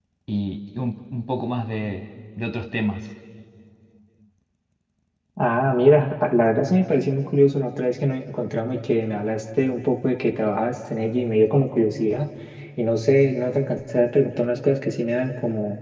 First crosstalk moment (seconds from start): none

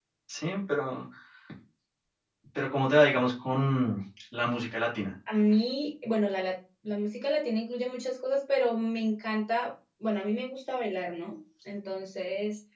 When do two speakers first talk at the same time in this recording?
none

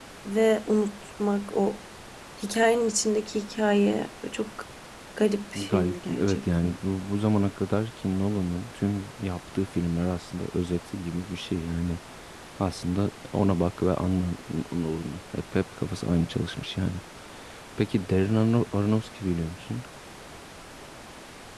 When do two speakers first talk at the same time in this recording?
5.5 s

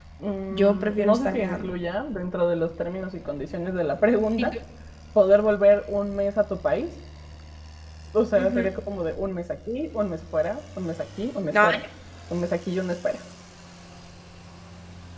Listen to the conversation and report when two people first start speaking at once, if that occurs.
0.5 s

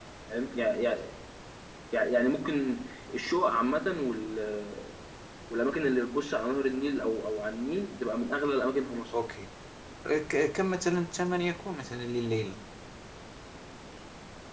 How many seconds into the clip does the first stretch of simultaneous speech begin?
none

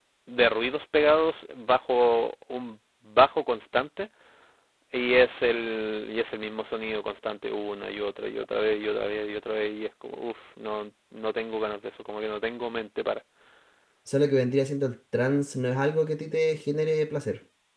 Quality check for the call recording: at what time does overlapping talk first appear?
none

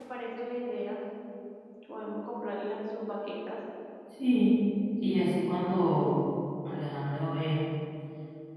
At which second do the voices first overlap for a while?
none

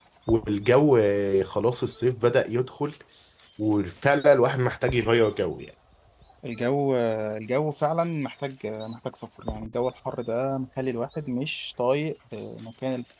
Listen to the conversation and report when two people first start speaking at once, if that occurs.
none

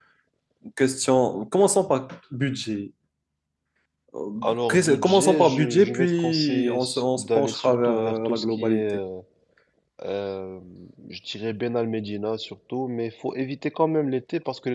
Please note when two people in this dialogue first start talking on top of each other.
4.7 s

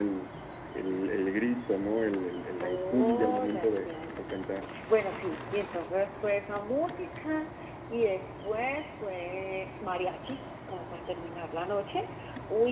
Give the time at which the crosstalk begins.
2.6 s

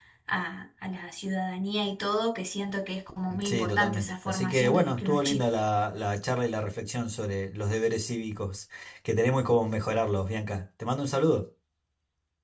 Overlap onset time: 3.3 s

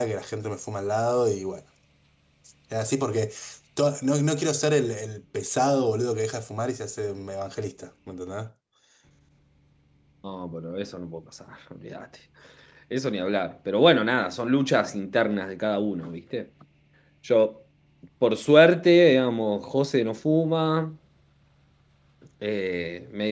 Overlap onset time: none

